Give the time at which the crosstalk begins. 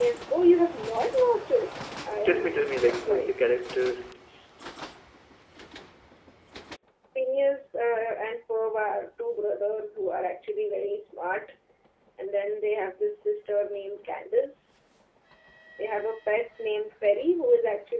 2.0 s

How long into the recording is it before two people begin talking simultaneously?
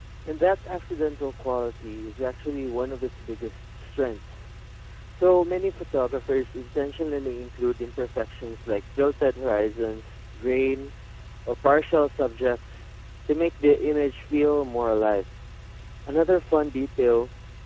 none

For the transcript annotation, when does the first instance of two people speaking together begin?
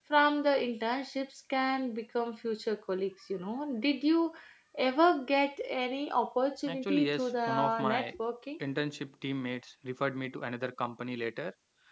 6.7 s

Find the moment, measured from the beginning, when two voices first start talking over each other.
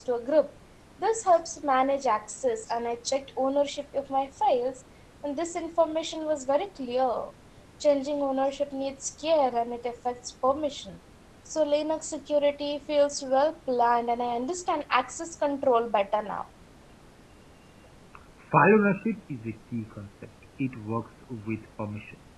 none

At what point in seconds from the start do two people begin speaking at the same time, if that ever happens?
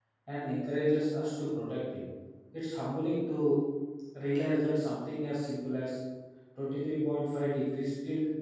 none

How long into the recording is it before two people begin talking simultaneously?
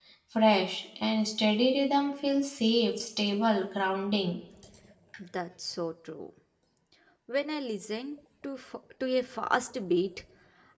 none

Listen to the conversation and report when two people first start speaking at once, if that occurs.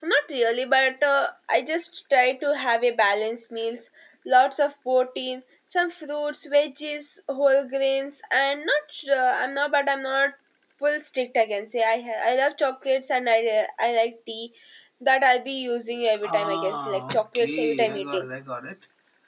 16.0 s

